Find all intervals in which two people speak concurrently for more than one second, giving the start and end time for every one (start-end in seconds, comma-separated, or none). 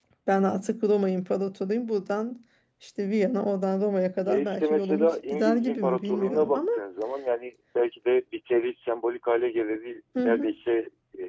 4.2-6.6